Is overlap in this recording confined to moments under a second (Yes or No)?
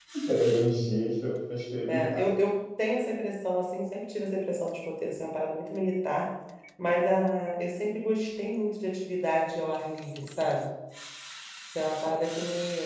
Yes